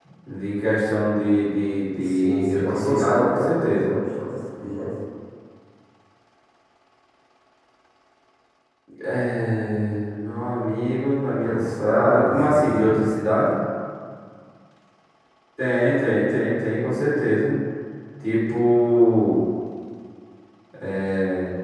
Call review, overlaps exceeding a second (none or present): present